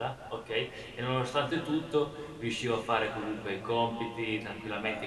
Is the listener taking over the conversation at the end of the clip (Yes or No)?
No